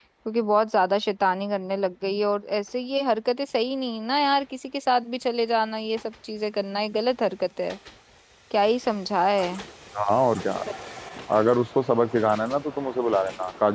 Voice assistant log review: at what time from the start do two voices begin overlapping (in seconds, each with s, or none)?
none